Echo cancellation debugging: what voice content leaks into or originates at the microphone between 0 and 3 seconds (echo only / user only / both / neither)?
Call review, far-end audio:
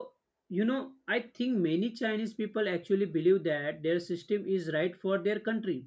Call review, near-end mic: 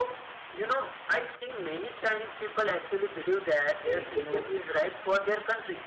echo only